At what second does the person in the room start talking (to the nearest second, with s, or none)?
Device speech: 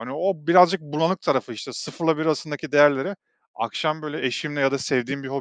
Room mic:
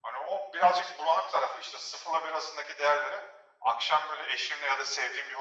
none